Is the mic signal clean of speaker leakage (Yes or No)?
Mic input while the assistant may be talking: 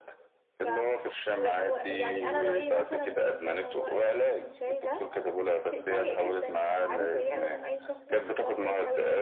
No